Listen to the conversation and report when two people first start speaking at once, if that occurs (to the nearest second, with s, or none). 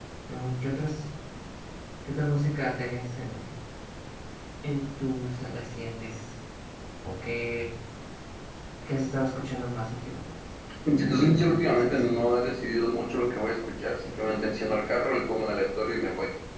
11 s